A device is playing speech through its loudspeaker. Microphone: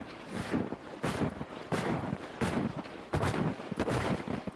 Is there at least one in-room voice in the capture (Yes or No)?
No